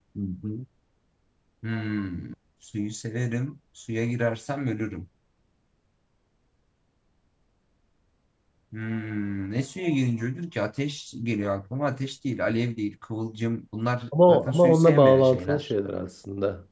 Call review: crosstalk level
present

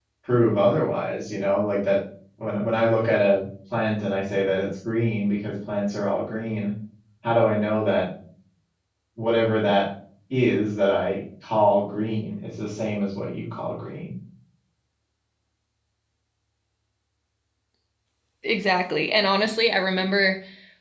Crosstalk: none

